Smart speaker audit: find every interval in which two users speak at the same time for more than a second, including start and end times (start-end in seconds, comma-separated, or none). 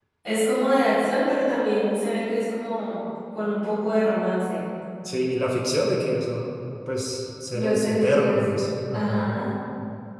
7.5-9.4